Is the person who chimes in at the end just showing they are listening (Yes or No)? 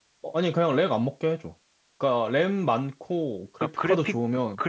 No